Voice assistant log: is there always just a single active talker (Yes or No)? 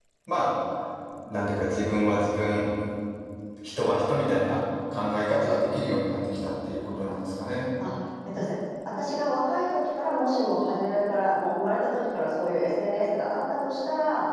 Yes